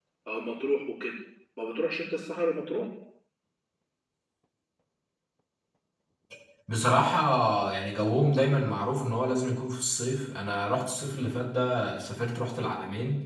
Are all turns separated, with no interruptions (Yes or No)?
Yes